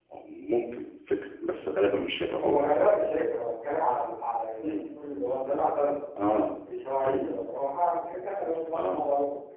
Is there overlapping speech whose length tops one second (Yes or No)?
No